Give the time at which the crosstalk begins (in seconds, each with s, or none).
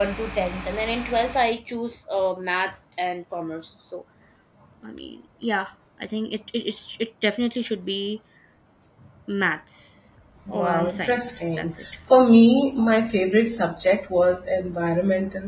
10.5 s